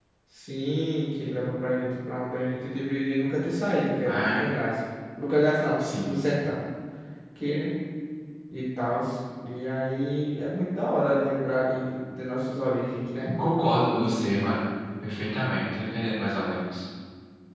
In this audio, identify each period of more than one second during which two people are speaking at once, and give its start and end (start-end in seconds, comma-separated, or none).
none